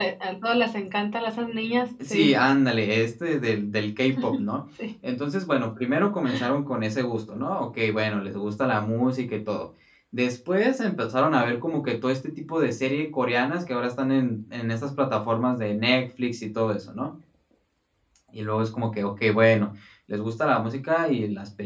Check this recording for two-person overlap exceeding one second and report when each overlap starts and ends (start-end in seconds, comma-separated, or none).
none